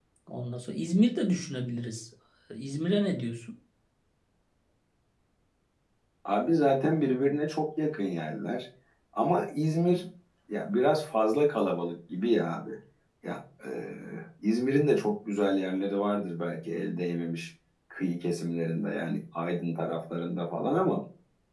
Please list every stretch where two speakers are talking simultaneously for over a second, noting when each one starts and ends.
none

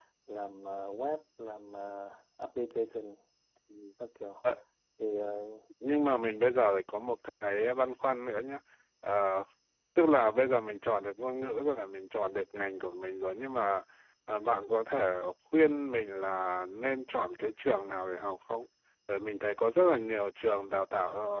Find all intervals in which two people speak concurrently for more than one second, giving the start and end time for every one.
none

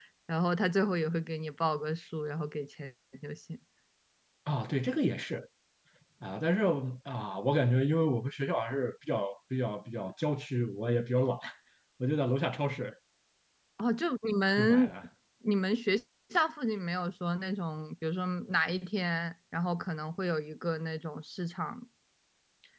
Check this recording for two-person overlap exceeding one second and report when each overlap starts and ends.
none

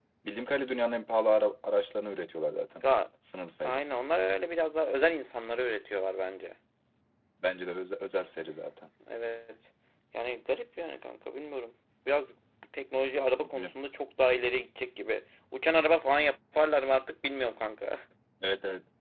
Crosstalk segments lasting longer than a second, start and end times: none

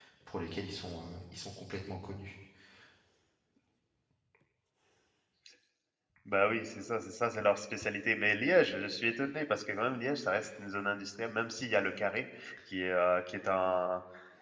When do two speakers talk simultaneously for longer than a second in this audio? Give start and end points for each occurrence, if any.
none

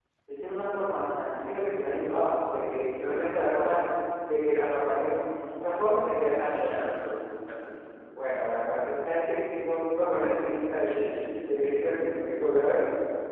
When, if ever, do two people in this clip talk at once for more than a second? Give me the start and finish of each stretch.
none

